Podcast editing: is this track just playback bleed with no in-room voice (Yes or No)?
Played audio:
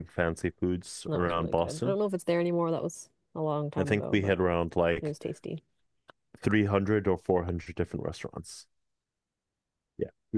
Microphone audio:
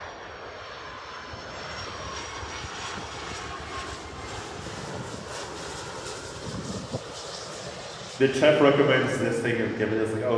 No